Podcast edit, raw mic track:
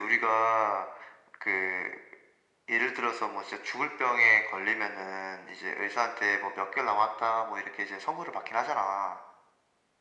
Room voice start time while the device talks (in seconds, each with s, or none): none